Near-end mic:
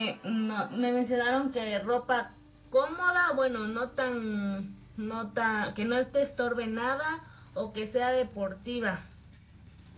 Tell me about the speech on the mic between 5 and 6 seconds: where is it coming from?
echo only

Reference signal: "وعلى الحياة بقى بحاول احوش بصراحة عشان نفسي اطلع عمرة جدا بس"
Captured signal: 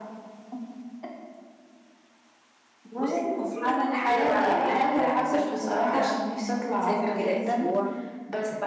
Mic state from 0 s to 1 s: neither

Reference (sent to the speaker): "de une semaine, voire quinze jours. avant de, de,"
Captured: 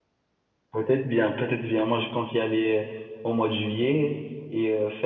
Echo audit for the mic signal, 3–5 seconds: user only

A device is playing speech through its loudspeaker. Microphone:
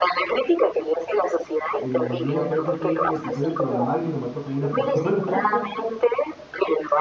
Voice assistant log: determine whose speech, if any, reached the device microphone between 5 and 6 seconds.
both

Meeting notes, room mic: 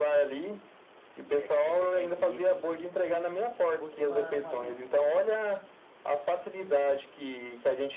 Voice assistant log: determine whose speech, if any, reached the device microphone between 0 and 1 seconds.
echo only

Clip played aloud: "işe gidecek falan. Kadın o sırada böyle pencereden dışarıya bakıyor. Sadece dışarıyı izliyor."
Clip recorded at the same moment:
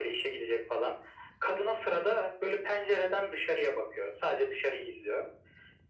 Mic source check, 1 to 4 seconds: echo only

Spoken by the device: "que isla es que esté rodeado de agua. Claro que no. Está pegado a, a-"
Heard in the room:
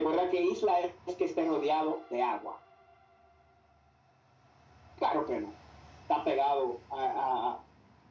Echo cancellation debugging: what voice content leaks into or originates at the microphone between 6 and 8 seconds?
echo only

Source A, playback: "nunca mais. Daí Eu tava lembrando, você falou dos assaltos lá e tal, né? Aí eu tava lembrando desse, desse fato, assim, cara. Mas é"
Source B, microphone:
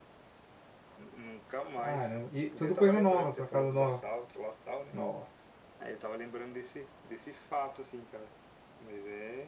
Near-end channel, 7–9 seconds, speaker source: echo only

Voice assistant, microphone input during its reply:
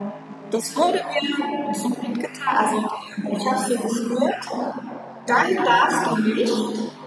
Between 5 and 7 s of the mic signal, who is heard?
both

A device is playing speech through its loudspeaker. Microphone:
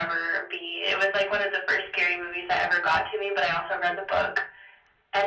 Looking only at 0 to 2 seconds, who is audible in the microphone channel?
echo only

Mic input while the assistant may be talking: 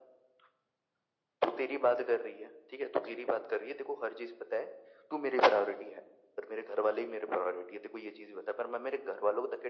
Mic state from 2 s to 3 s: echo only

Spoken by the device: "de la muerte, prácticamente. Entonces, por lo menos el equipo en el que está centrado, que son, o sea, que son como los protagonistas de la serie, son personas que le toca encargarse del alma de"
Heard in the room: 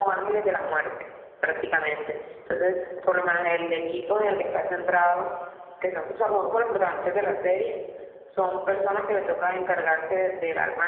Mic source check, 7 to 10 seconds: echo only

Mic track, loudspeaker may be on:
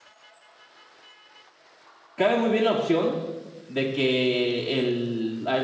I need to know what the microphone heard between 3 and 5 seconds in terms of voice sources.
user only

